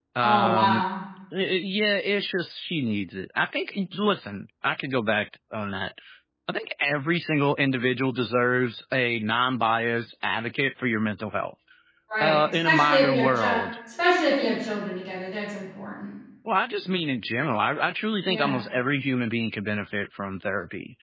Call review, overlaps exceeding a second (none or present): present